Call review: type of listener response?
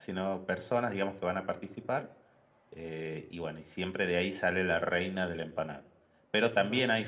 listening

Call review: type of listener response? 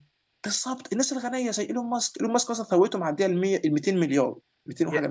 taking over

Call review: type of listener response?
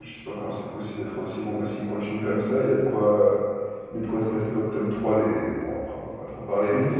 taking over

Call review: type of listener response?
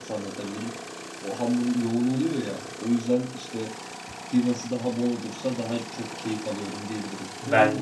listening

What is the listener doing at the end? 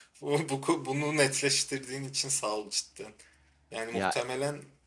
listening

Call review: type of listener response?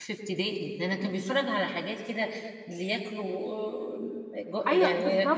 taking over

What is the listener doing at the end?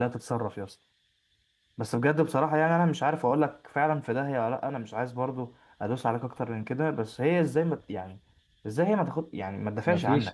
taking over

